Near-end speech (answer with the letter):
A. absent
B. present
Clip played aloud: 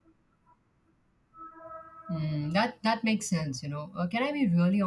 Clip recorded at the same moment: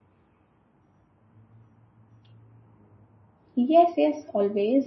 B